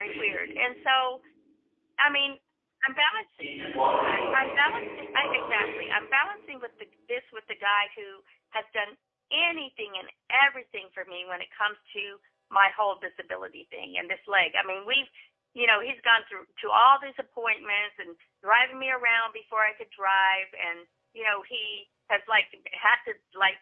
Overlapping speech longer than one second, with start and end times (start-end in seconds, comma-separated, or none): 4.0-5.7